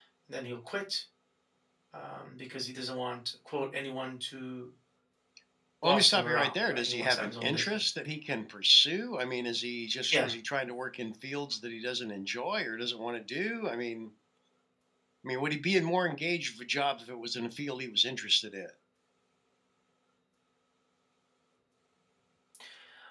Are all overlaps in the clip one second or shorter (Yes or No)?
No